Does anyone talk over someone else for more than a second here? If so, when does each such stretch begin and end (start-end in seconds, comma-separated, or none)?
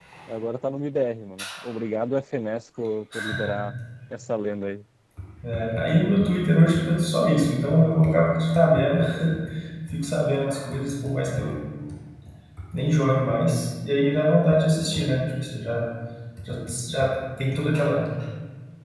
none